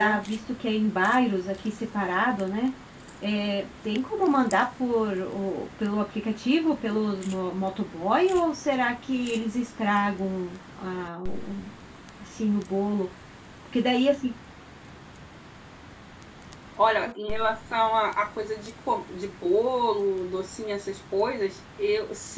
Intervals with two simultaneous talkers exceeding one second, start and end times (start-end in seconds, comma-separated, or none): none